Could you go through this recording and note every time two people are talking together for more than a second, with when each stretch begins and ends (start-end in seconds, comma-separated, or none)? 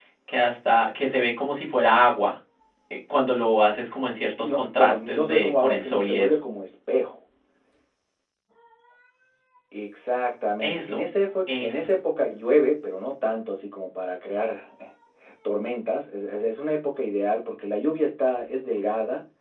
4.4-6.4